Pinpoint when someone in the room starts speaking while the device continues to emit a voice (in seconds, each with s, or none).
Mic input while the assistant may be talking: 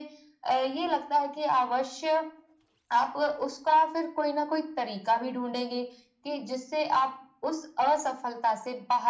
none